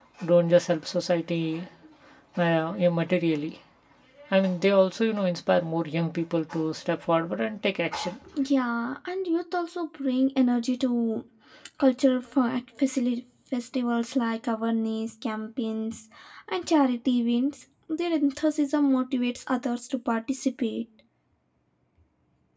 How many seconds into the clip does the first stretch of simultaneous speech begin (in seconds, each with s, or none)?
none